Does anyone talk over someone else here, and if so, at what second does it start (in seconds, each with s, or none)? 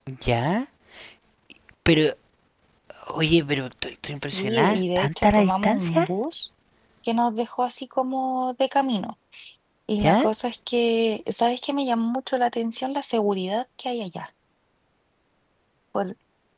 4.2 s